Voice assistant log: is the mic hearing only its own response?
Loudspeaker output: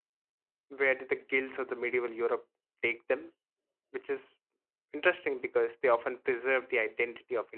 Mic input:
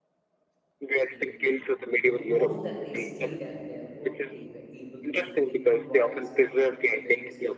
No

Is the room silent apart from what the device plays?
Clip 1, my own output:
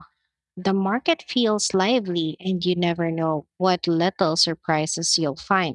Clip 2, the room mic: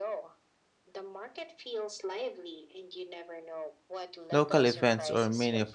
No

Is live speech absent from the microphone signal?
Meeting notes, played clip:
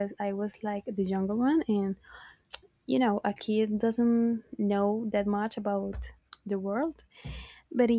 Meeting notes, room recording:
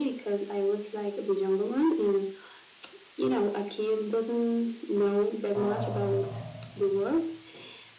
No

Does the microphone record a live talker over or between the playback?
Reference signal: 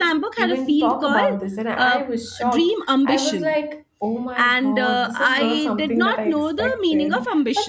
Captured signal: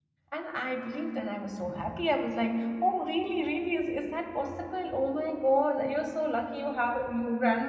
Yes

